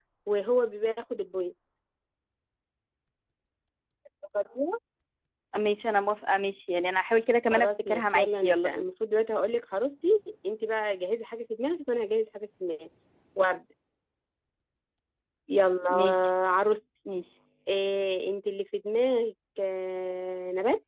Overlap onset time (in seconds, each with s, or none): 7.5 s